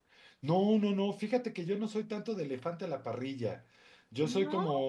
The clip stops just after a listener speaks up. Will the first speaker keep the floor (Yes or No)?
Yes